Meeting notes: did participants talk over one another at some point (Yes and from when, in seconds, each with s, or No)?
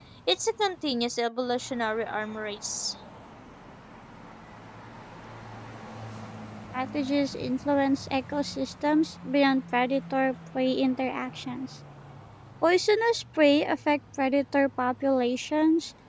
No